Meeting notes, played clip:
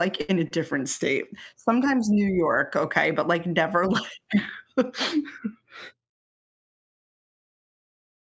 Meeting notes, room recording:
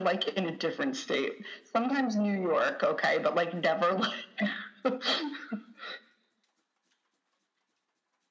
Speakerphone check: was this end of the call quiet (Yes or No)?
Yes